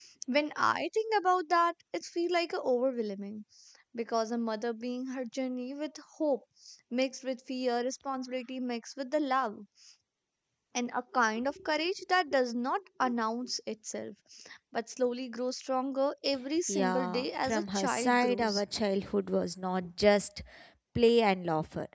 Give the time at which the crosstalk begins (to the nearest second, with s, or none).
17 s